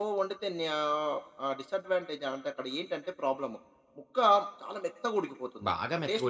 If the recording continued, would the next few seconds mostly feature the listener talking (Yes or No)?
Yes